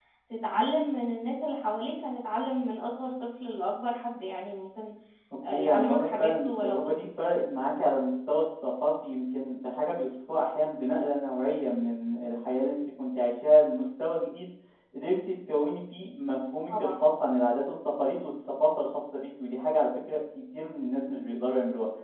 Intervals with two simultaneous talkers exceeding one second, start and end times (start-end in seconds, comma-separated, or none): 5.5-7.0